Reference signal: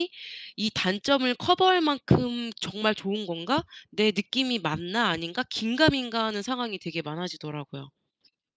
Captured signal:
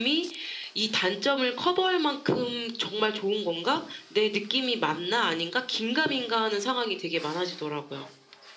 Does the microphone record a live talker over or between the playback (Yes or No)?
No